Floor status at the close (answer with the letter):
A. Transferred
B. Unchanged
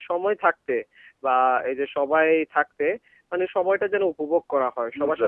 B